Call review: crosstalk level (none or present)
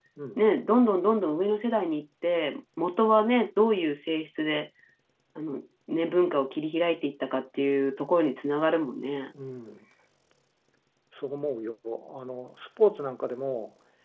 none